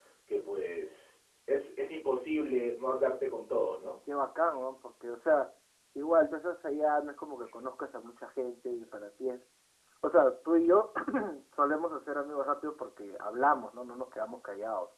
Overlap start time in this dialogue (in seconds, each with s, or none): none